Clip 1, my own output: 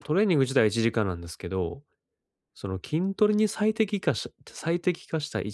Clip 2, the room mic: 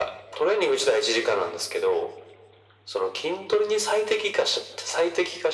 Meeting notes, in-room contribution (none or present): none